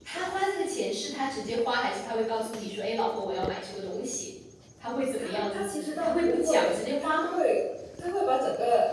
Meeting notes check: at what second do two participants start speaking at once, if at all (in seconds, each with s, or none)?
5.2 s